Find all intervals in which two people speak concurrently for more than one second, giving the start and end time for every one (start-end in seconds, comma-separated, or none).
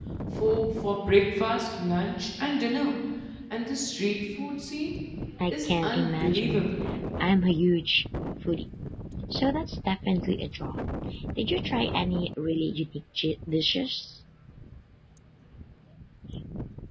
5.5-6.7